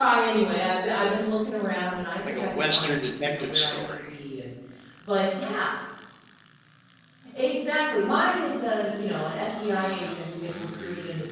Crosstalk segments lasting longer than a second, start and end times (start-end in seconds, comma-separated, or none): 2.3-4.1